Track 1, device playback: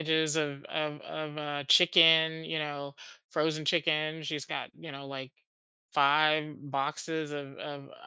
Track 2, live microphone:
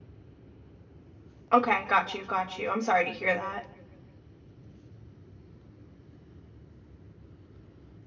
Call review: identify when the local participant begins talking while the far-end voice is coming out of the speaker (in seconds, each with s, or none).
1.5 s